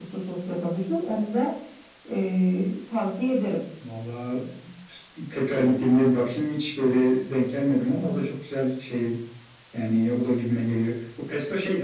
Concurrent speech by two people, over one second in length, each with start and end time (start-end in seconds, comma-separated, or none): none